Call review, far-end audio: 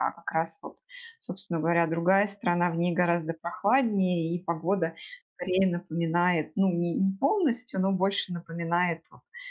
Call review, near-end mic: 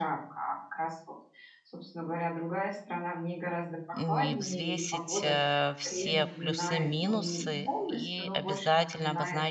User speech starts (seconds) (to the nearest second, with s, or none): 4 s